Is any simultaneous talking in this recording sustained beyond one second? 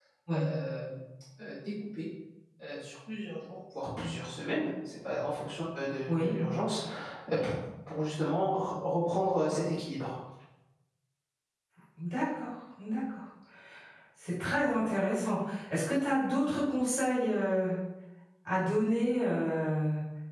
No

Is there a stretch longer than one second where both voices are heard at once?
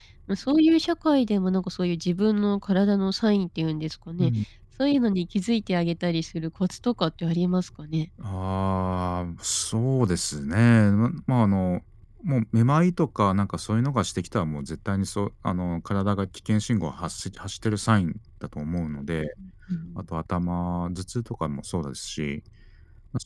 No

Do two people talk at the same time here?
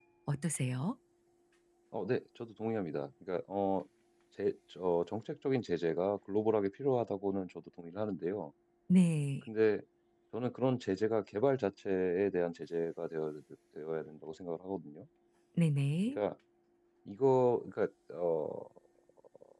No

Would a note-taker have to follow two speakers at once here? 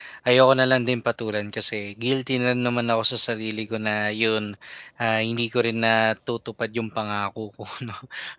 No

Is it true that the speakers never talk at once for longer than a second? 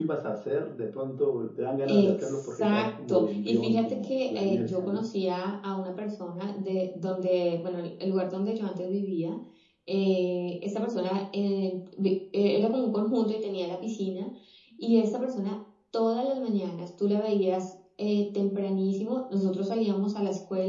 No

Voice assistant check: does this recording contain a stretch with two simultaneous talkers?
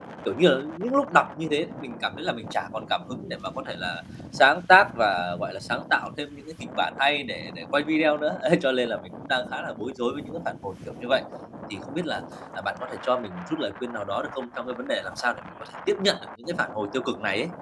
No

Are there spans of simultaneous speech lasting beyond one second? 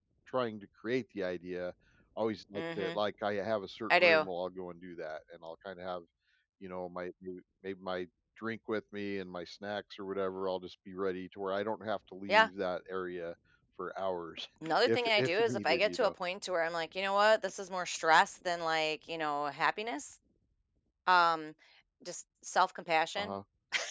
Yes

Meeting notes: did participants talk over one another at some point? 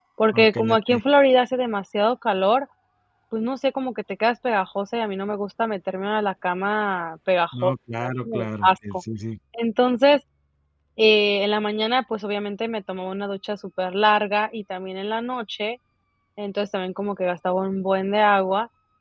Yes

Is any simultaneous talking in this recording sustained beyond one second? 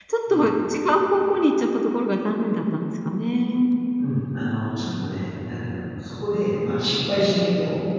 No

